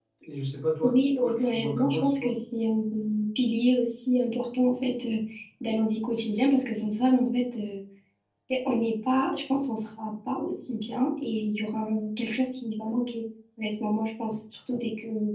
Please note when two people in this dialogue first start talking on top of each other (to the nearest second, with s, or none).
1 s